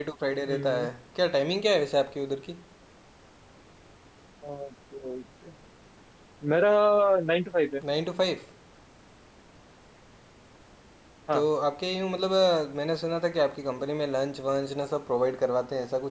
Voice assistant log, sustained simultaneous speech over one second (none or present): none